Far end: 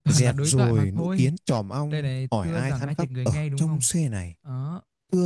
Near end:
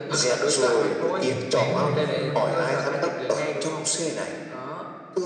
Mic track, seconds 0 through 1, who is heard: echo only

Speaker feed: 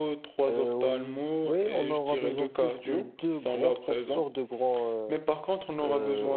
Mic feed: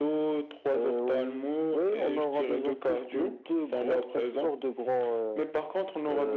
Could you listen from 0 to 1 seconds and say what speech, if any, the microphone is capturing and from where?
echo only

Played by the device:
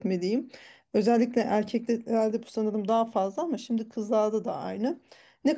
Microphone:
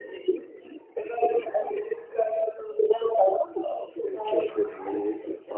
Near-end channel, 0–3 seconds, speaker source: echo only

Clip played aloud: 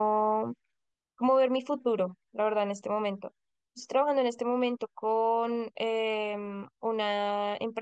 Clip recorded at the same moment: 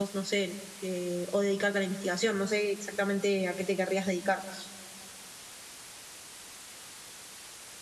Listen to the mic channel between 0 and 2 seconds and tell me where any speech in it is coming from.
user only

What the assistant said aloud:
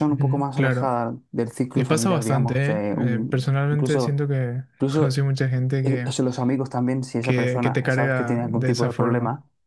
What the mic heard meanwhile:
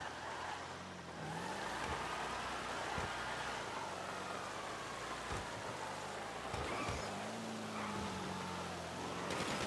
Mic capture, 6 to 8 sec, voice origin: neither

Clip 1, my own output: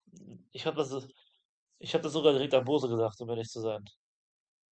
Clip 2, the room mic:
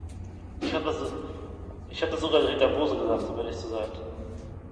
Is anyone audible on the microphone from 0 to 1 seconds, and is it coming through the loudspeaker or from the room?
echo only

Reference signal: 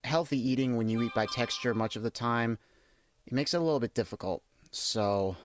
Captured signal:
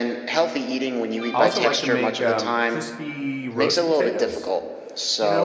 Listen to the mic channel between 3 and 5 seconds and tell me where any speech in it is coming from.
both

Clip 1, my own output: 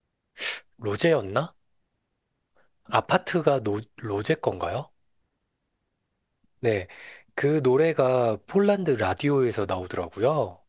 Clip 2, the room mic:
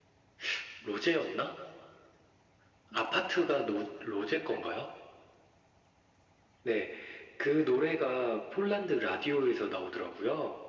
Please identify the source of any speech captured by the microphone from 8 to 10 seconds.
echo only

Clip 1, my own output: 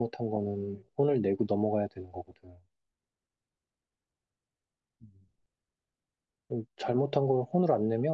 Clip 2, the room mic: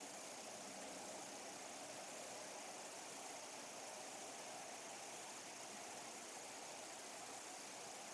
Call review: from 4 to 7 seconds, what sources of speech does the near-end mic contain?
neither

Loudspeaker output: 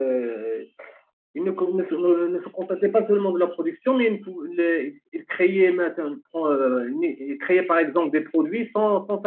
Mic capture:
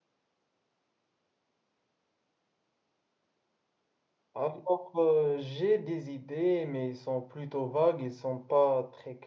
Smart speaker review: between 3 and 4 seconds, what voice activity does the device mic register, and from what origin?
neither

